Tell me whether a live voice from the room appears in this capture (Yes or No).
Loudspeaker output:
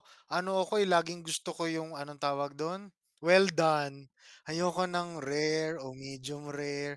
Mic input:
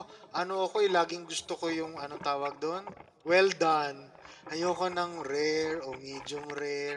No